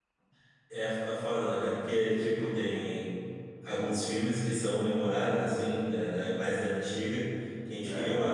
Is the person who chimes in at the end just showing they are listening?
Yes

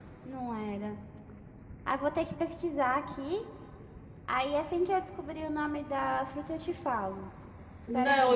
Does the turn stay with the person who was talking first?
No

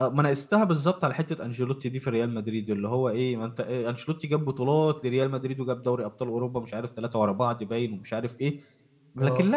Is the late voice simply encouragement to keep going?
Yes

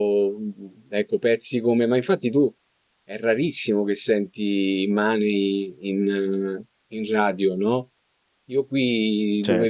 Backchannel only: Yes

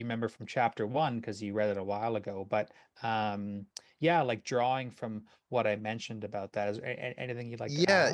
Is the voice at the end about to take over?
Yes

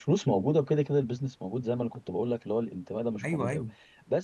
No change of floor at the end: Yes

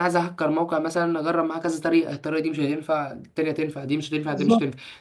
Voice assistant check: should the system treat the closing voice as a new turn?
No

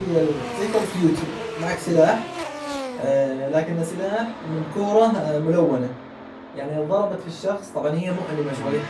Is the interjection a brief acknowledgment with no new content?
Yes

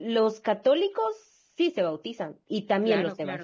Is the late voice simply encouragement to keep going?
No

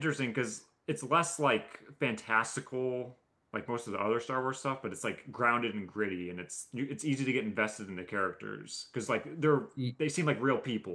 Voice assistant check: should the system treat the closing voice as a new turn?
No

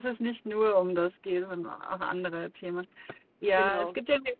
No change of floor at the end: Yes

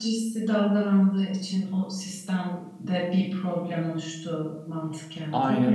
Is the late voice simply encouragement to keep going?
No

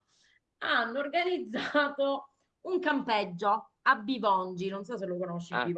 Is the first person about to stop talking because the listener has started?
Yes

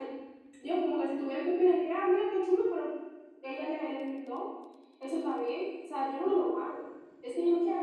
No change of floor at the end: No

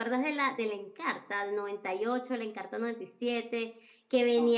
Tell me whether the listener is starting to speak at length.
No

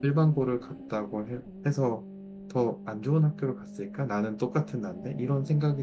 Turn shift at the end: Yes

